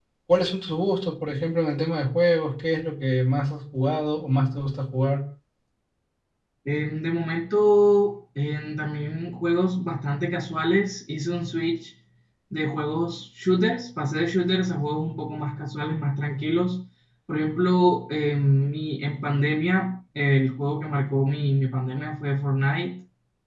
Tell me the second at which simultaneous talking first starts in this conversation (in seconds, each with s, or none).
none